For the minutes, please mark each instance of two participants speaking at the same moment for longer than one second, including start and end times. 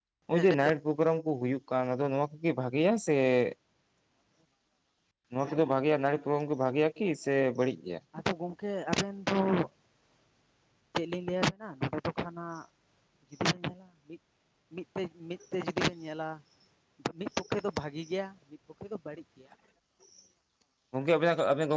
none

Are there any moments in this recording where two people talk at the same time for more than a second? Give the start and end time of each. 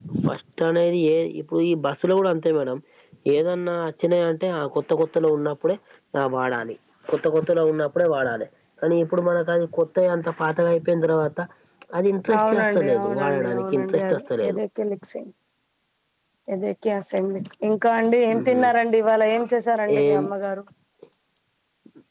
12.4-14.6

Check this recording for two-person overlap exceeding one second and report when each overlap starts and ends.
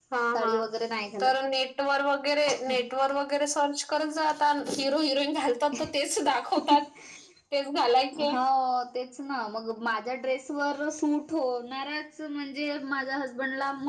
none

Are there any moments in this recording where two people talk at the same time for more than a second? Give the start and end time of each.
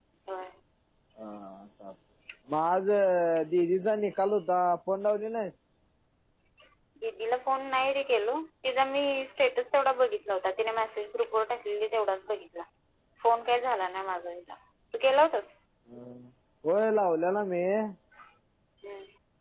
none

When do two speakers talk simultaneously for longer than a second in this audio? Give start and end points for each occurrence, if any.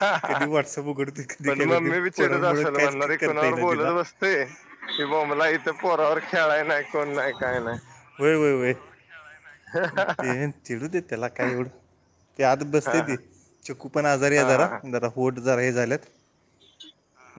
1.5-3.9

